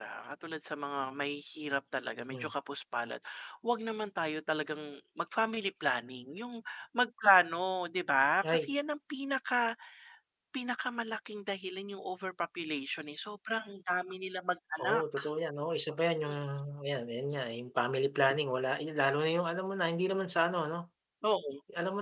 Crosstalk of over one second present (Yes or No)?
No